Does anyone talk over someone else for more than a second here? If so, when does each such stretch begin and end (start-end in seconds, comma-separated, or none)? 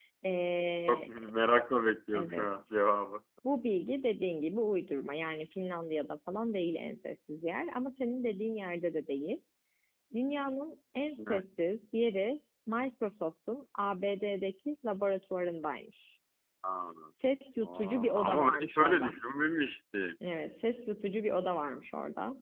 17.6-19.1